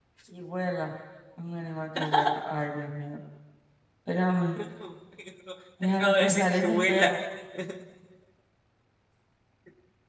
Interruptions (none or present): present